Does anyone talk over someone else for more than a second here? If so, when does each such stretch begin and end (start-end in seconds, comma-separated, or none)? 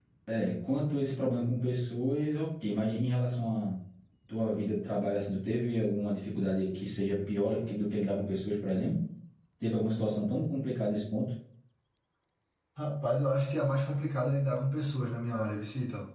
none